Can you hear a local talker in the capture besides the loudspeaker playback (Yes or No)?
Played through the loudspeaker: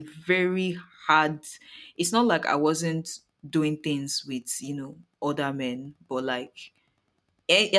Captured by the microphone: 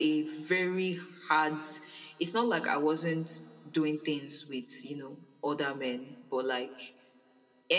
No